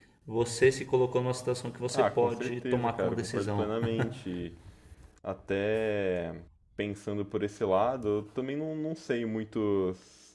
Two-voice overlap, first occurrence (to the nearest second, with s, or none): 2 s